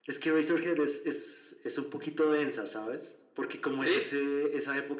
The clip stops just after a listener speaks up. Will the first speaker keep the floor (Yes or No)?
Yes